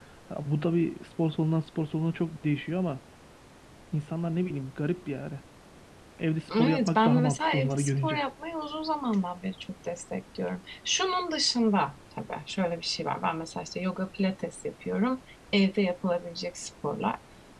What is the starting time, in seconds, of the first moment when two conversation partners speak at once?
7 s

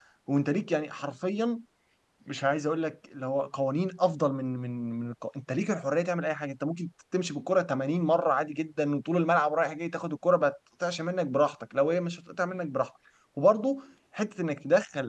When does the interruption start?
none

